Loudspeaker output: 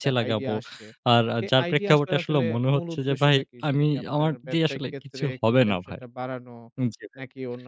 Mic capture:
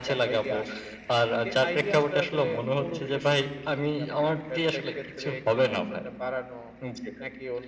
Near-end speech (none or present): none